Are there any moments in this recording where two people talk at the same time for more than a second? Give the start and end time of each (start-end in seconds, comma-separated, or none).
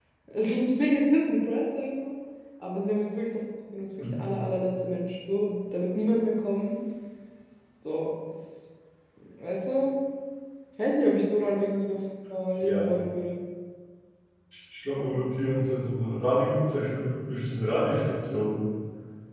none